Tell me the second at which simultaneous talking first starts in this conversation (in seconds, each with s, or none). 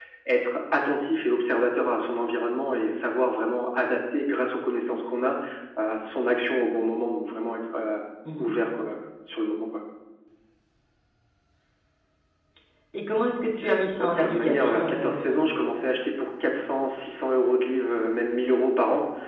14.0 s